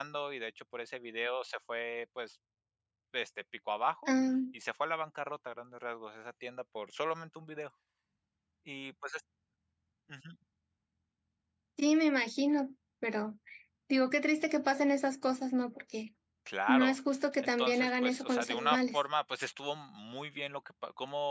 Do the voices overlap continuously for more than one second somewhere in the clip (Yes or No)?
Yes